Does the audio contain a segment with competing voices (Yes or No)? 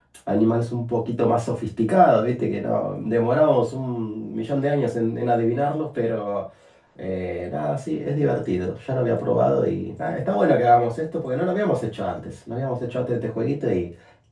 No